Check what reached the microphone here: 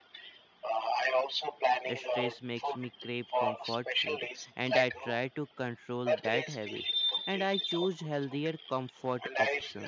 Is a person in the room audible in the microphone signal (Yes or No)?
Yes